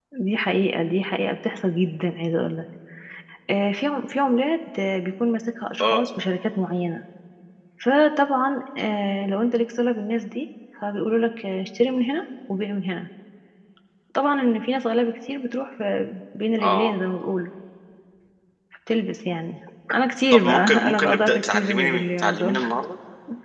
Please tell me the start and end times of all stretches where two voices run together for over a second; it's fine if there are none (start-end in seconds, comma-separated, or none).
20.3-22.7